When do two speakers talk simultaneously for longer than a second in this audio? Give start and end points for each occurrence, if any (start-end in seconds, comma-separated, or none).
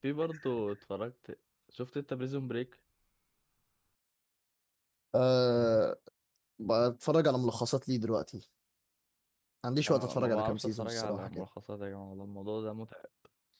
9.9-11.4